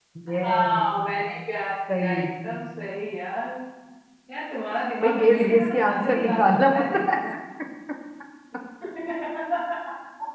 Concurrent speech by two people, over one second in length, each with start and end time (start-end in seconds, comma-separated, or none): 5.0-7.2